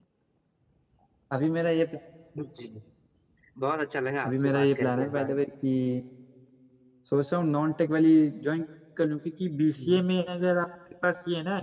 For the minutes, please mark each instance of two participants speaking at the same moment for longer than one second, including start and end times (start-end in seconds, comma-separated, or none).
4.2-5.4